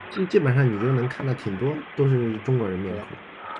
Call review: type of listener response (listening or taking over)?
taking over